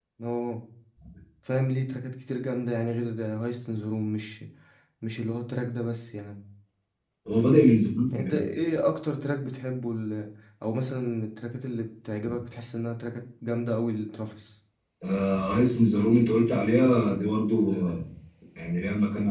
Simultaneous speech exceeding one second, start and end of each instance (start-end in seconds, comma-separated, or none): none